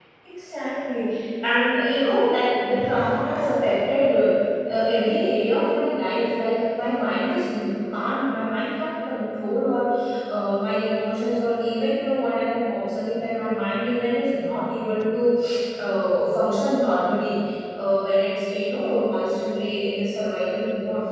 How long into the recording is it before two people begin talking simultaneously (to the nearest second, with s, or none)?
none